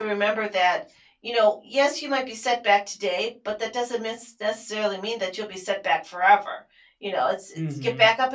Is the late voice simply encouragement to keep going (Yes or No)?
Yes